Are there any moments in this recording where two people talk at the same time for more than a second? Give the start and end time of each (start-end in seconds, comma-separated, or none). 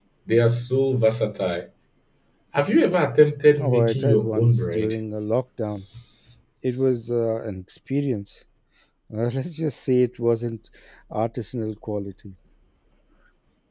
3.6-4.9